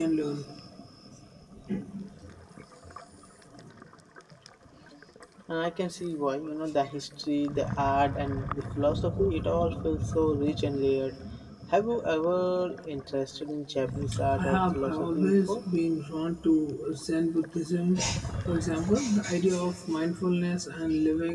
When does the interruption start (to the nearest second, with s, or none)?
14 s